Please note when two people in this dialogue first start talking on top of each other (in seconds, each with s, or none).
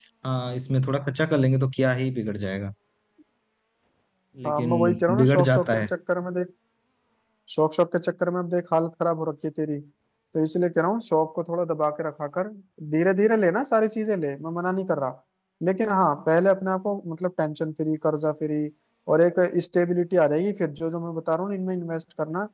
4.4 s